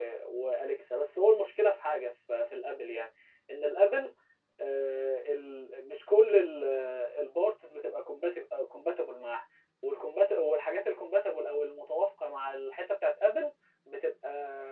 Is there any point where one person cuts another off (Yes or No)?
No